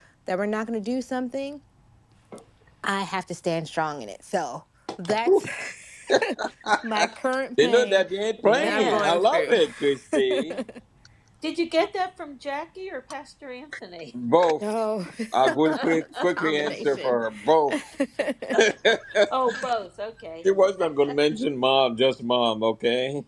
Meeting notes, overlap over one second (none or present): present